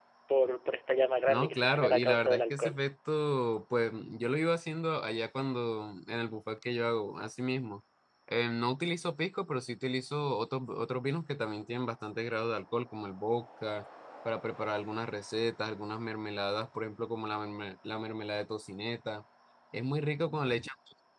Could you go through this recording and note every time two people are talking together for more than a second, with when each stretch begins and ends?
1.3-2.7

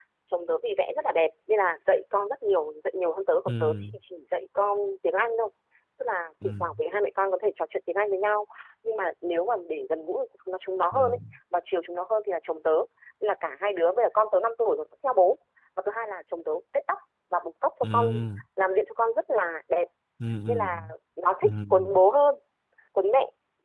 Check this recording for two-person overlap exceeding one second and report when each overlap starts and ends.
none

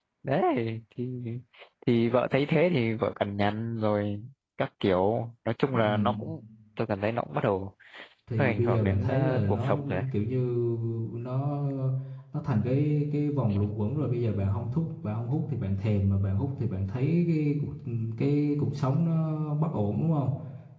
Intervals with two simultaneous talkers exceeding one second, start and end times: 8.4-10.0

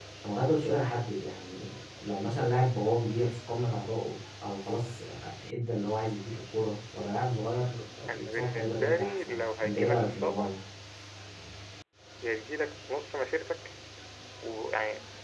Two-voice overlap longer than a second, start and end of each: 8.1-10.6

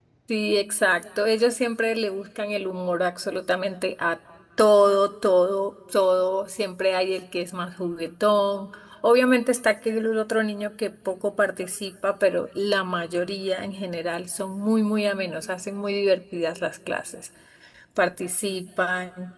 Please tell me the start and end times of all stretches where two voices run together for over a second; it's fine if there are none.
none

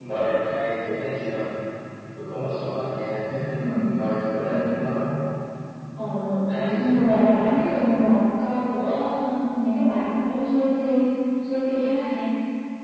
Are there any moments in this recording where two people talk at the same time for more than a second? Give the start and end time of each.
6.5-7.8

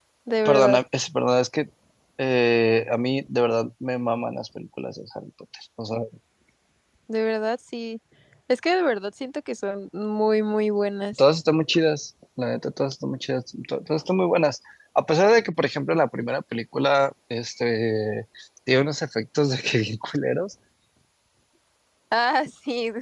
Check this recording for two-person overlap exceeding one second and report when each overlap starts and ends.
none

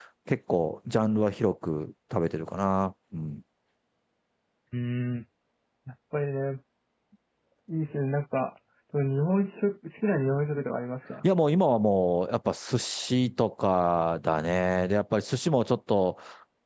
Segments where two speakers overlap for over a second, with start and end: none

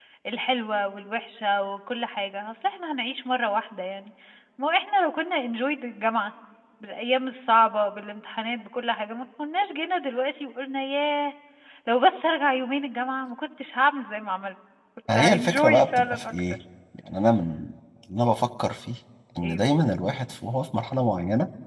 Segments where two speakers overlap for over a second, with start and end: 15.2-16.4

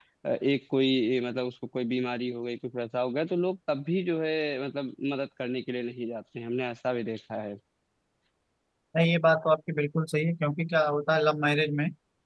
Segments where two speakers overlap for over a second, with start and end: none

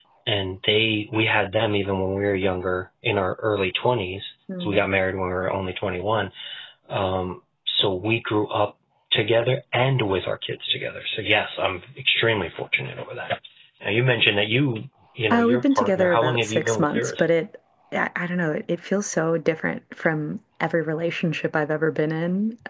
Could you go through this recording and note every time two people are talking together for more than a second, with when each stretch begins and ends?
15.3-17.2

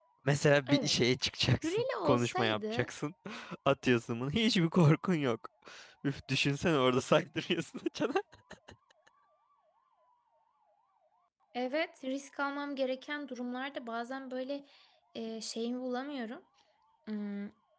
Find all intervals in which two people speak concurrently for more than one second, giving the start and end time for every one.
1.6-2.9

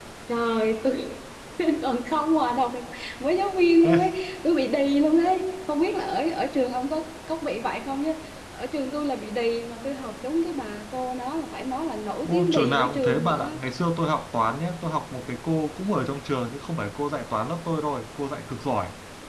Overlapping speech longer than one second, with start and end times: 12.2-13.6

